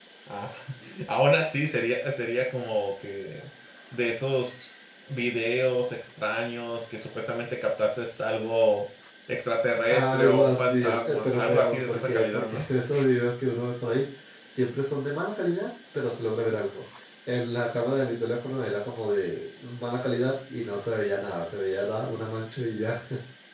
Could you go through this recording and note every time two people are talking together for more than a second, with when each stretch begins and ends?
9.9-12.6

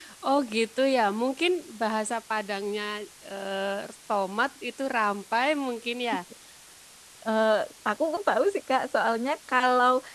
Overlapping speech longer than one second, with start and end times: none

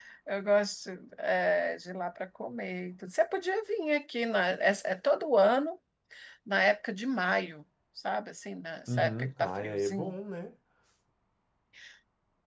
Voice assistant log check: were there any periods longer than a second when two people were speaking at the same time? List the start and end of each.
8.9-10.2

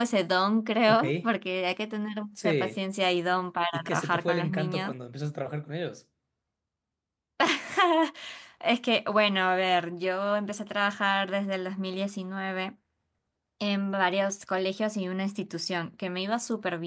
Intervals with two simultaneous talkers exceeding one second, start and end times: 3.7-4.9

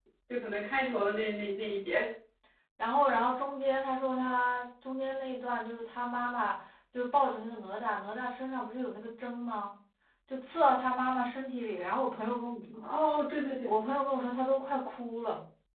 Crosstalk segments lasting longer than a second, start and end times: none

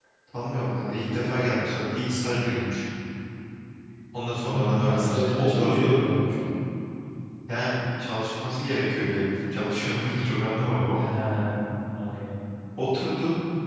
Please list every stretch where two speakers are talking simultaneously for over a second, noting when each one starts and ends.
4.4-5.9

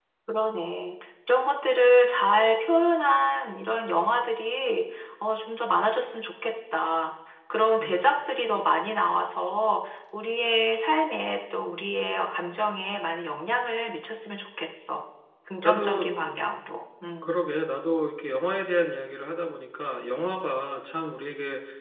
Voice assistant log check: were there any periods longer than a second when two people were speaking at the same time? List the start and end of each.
none

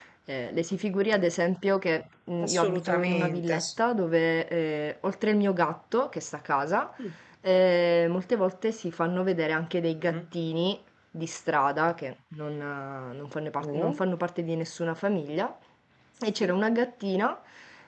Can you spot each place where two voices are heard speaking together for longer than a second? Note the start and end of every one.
2.4-3.7

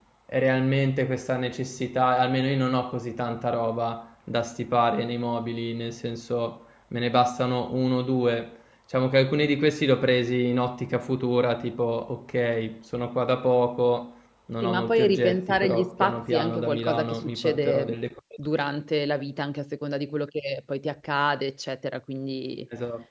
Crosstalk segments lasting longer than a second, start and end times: 14.6-17.9

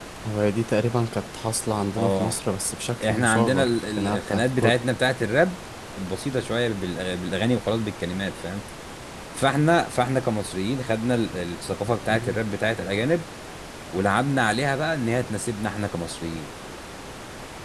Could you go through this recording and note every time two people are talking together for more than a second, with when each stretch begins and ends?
3.1-4.8

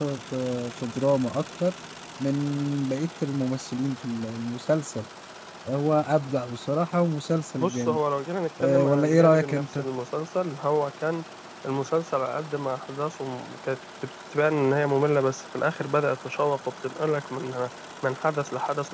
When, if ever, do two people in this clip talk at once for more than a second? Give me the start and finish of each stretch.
8.6-9.8

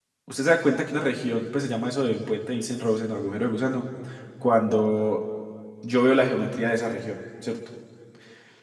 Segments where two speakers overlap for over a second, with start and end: none

